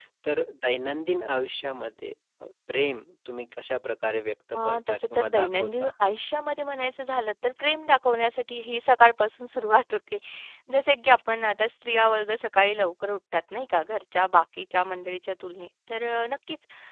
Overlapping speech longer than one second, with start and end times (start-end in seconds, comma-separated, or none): 4.6-5.9